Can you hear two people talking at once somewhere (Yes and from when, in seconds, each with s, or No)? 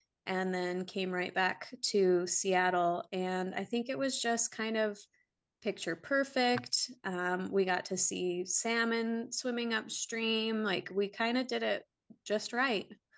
No